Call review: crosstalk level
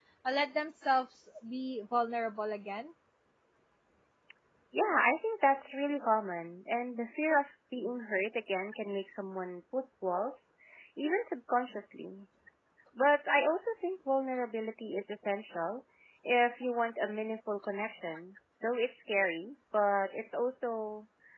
none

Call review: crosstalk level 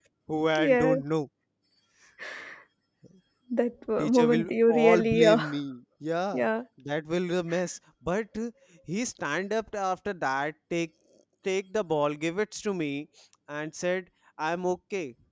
present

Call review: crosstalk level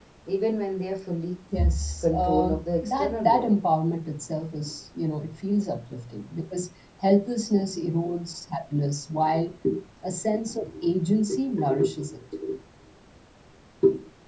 present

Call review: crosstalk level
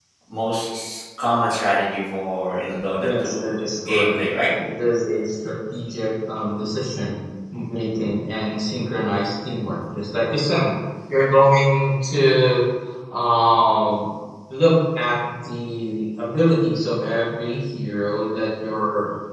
present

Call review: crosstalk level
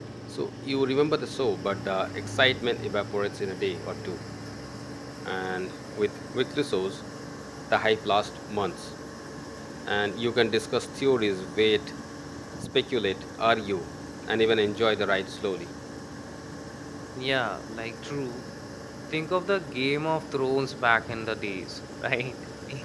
none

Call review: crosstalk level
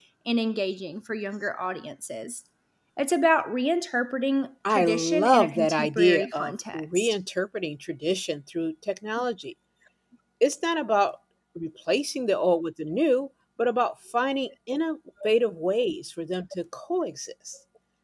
present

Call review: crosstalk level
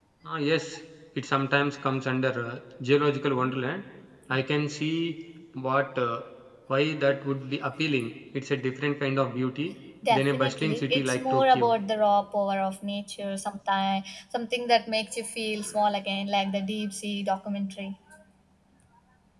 present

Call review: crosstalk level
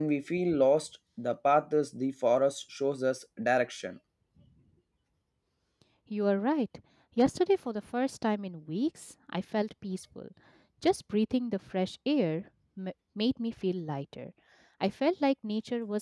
none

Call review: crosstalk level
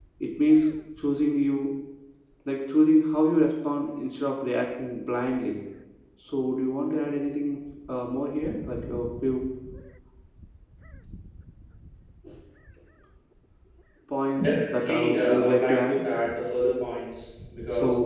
present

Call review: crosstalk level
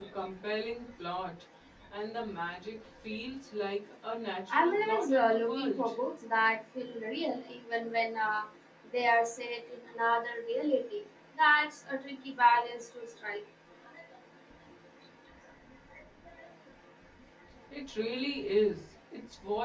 present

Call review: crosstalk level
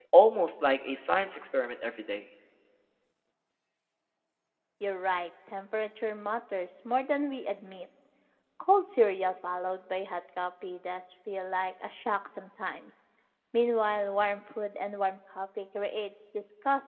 none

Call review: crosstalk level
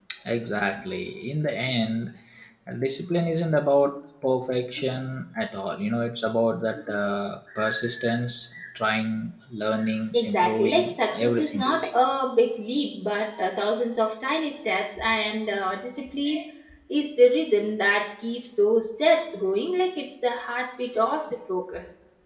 present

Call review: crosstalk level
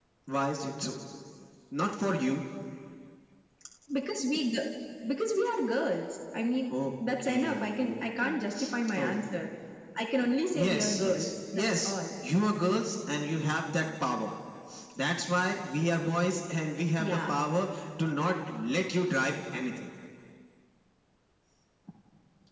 present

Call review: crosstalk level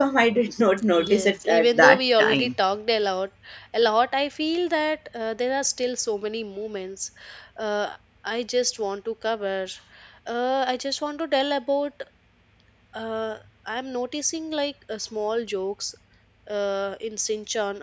present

